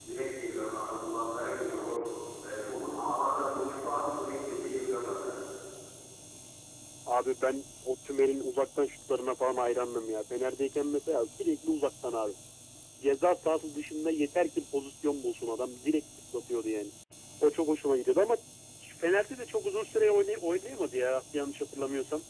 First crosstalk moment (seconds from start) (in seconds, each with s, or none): none